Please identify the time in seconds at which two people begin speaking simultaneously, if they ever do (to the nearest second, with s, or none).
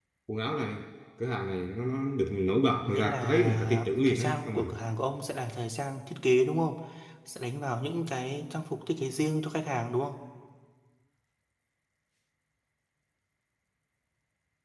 3 s